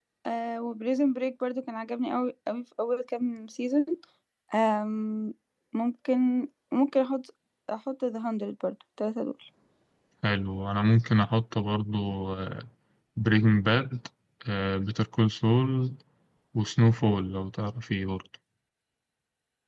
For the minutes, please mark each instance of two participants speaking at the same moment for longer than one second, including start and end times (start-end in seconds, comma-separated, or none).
none